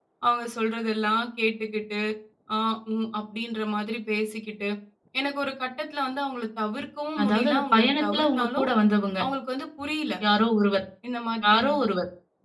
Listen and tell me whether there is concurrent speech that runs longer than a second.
Yes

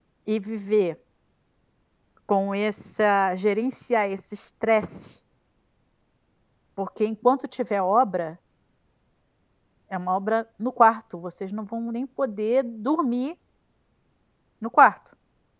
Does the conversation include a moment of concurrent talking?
No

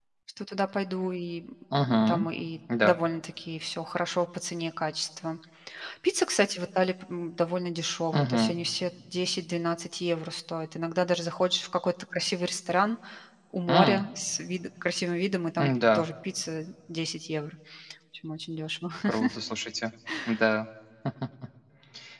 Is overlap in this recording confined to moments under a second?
Yes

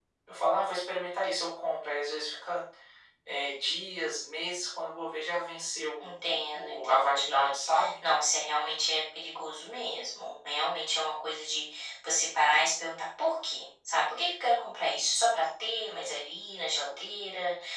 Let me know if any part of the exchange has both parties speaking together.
Yes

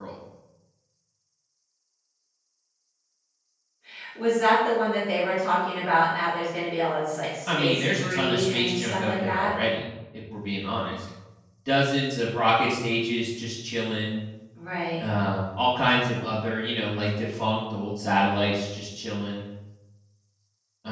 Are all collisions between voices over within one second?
No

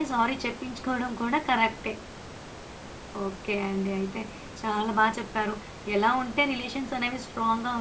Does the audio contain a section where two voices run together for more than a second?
No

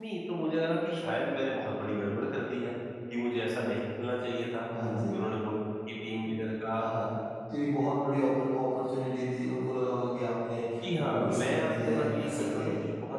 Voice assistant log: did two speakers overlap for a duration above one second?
Yes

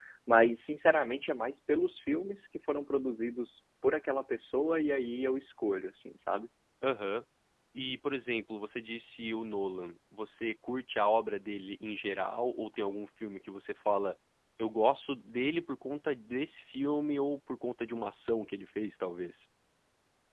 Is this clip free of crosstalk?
Yes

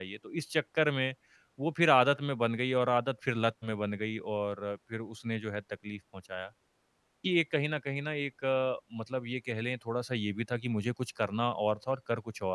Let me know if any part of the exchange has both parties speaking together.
No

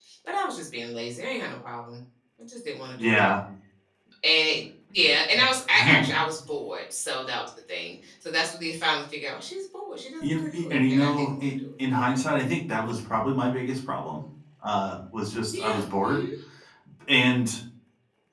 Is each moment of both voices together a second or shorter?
No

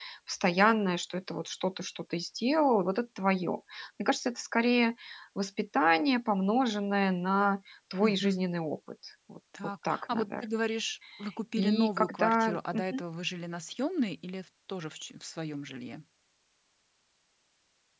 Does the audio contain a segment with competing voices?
Yes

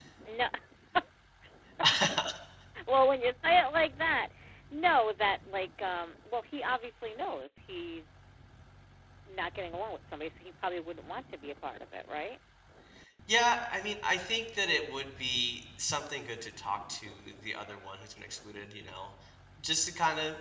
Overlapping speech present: No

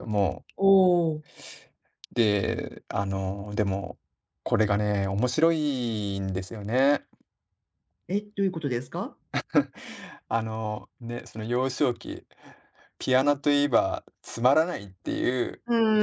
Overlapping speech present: No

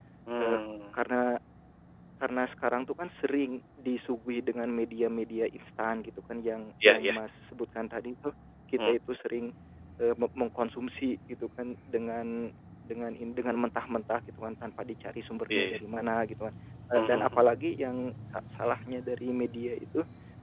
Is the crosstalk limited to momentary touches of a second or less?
Yes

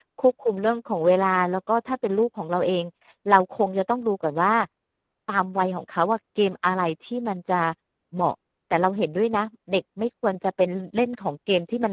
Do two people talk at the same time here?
No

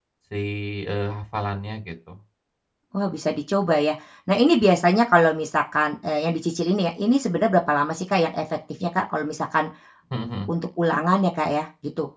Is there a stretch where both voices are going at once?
No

